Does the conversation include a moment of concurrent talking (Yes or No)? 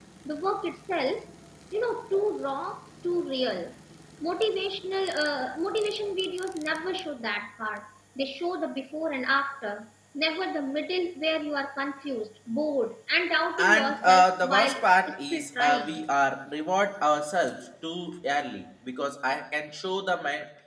Yes